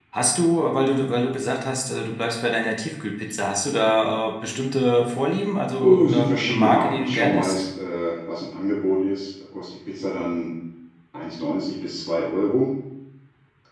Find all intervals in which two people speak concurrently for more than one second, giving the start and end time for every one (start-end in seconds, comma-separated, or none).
5.8-7.6